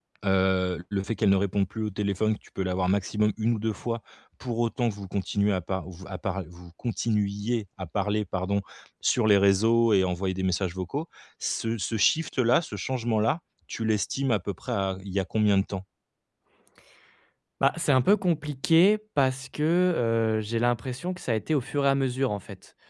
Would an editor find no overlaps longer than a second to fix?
Yes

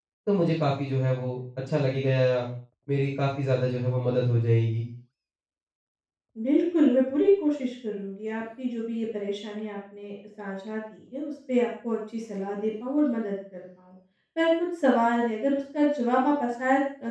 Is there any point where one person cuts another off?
No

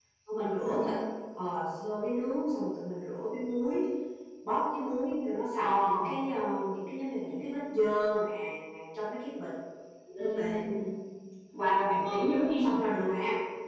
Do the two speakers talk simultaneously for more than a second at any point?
No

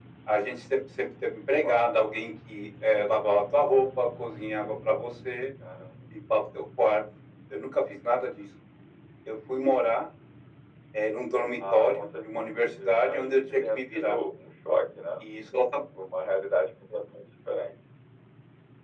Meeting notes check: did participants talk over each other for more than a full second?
Yes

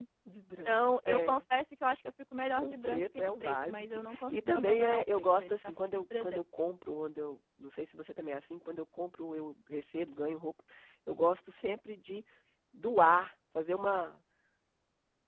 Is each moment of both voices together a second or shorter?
No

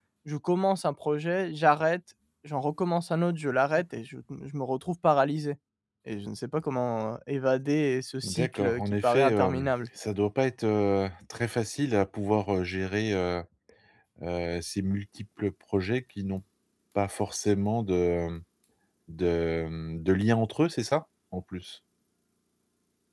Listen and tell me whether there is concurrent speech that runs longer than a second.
Yes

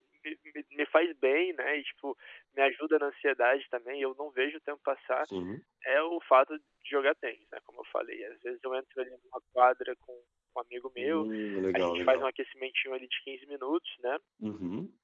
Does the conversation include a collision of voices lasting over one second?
No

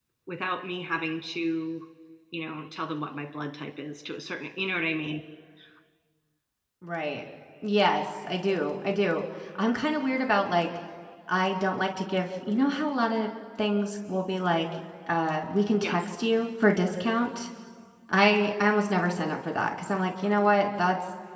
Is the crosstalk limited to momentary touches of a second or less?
Yes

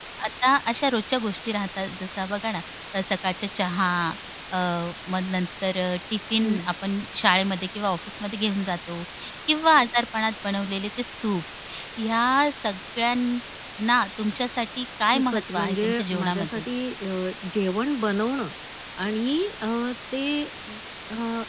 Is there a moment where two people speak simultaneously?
Yes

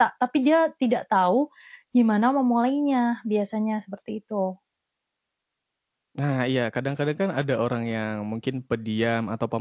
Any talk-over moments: No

